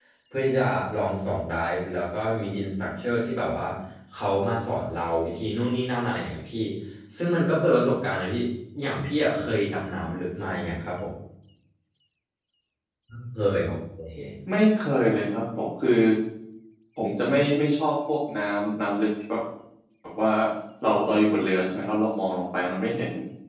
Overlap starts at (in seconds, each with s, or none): none